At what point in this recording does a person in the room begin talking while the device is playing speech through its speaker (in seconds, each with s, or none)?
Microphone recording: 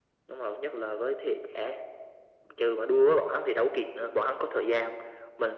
none